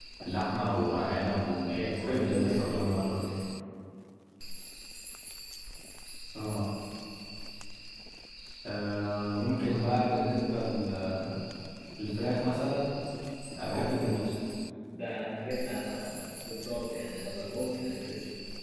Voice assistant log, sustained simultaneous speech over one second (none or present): present